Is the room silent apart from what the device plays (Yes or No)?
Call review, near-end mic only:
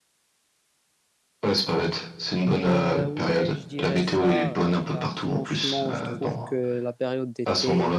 No